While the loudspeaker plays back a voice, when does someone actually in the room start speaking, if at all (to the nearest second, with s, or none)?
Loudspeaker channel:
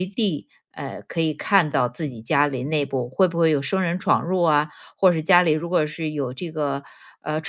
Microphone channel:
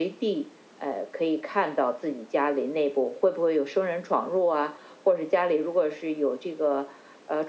none